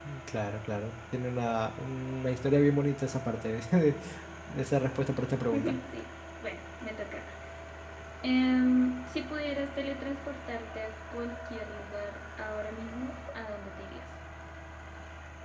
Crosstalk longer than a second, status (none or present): none